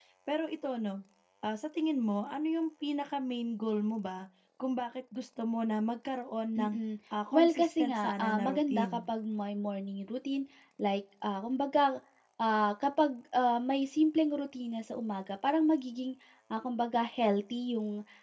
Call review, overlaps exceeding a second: present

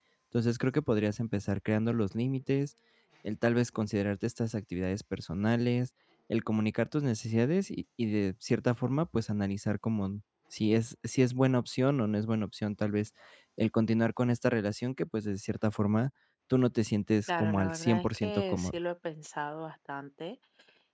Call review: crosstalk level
present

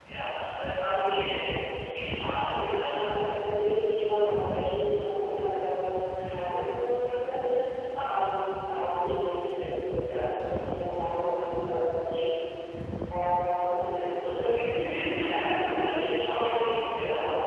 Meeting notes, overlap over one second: present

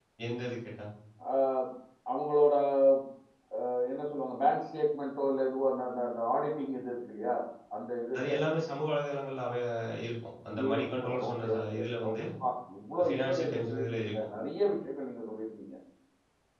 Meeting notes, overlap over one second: present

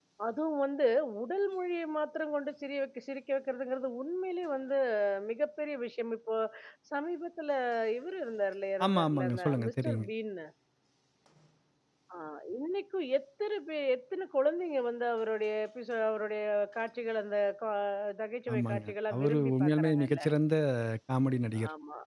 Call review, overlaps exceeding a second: present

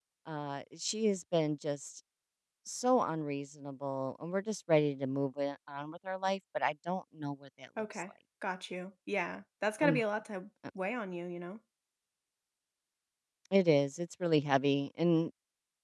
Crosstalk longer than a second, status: none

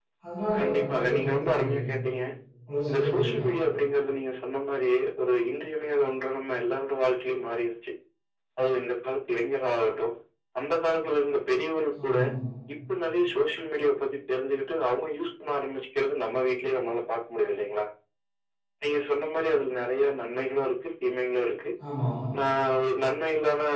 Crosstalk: present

